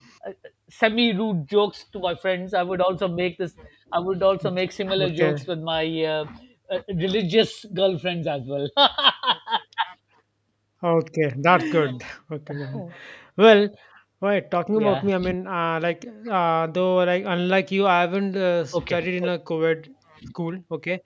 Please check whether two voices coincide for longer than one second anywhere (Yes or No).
No